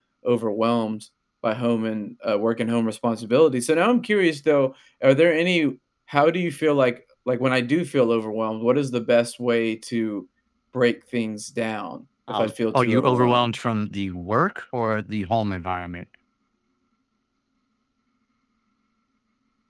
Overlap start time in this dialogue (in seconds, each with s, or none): 12.3 s